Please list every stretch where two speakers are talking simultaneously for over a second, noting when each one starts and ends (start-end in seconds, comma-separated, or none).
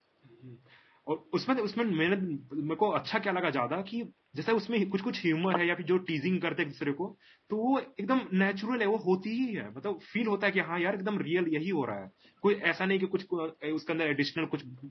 none